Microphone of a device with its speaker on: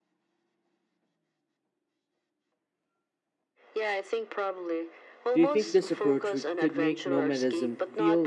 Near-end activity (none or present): present